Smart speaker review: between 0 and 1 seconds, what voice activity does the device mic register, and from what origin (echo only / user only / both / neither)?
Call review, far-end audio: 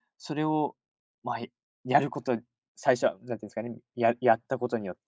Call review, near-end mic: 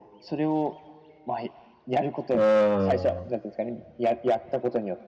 echo only